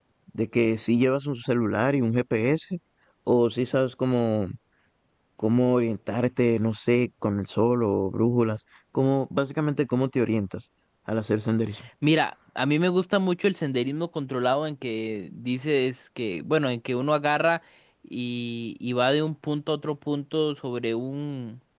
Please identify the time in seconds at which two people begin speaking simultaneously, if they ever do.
none

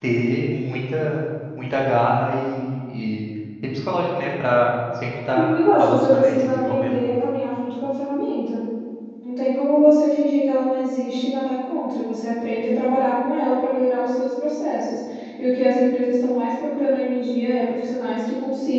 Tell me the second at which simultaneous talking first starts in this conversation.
5 s

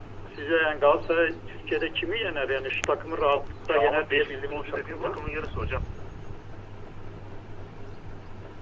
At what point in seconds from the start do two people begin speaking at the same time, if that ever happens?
4 s

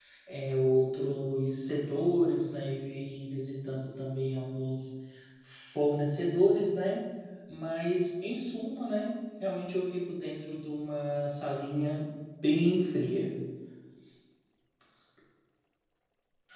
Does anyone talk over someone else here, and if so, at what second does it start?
none

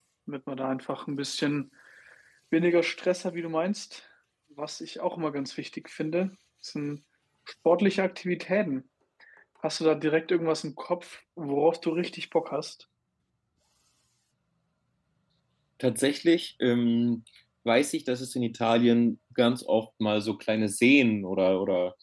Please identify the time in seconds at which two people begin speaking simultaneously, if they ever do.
none

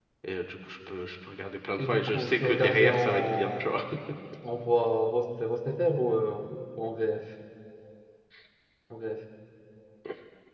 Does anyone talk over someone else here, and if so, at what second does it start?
2 s

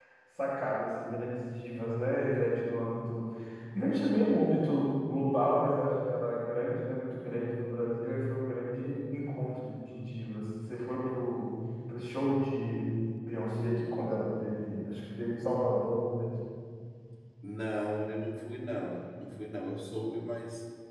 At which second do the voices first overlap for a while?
none

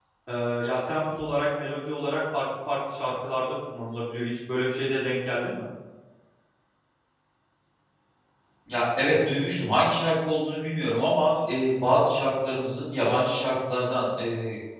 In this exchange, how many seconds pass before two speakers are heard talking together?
none

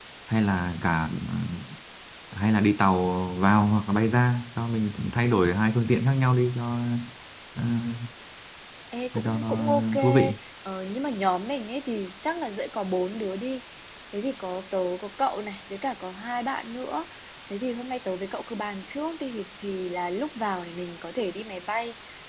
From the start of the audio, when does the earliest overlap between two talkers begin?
9 s

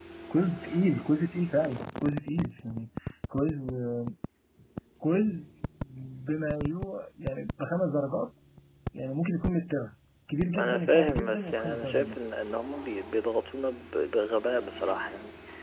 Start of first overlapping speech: 11 s

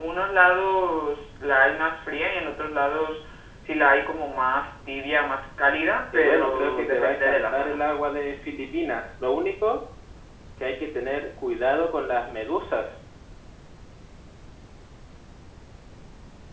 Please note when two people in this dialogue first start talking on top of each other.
6 s

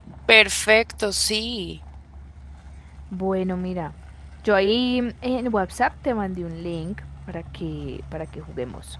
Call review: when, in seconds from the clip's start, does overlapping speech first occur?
none

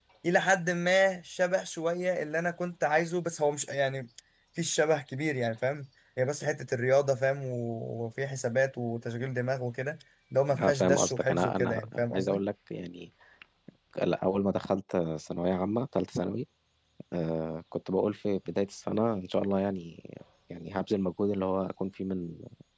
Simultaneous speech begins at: 11 s

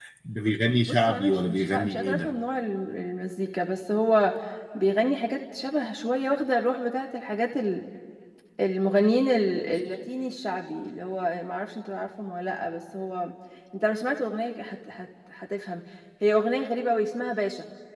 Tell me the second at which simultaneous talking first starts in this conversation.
1 s

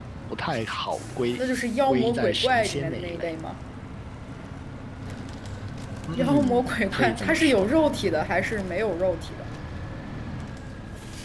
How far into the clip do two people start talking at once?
2 s

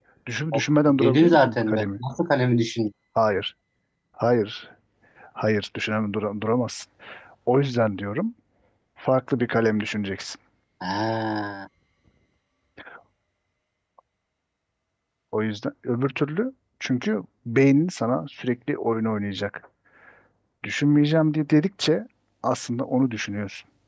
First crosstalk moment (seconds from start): 1 s

